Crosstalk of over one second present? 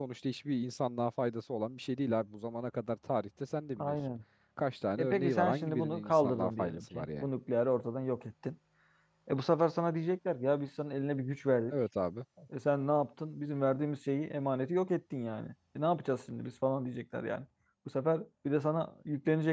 Yes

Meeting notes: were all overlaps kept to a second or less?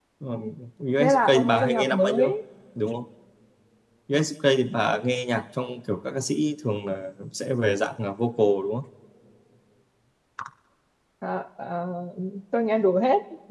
No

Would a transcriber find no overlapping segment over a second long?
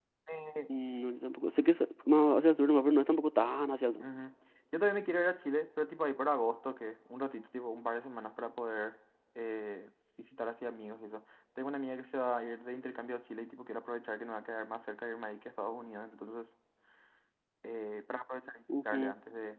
Yes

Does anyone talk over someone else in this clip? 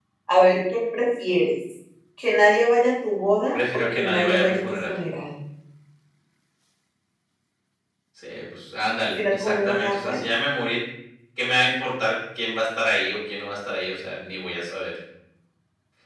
Yes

